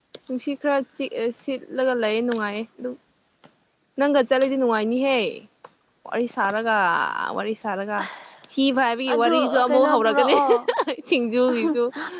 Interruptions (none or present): present